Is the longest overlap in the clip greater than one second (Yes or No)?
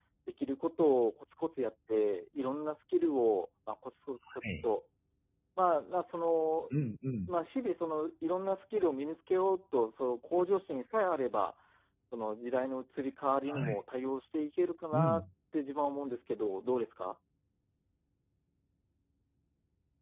No